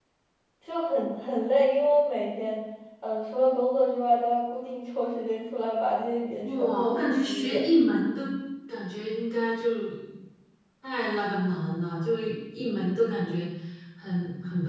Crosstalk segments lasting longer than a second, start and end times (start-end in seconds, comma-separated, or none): 6.4-7.6